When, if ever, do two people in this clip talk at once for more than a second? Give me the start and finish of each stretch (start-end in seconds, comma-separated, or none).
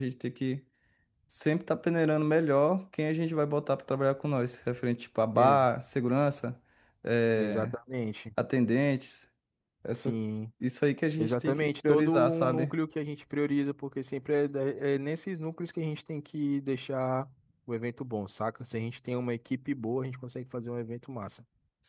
11.2-12.7